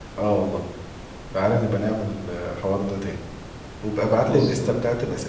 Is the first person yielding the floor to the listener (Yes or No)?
No